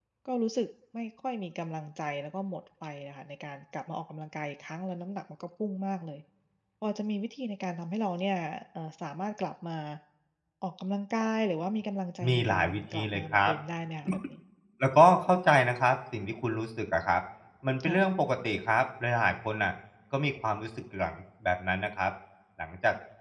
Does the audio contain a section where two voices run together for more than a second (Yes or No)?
Yes